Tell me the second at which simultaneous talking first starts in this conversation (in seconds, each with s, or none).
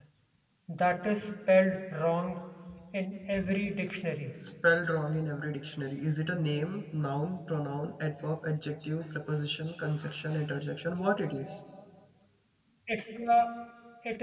none